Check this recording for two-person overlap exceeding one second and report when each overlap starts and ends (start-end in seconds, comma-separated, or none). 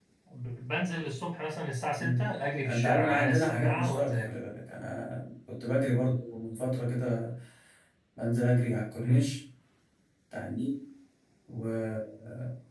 2.7-4.3